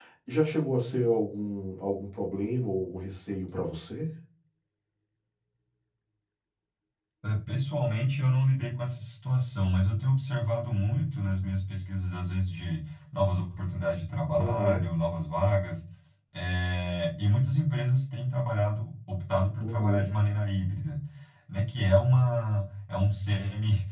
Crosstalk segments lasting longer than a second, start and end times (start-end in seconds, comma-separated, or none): none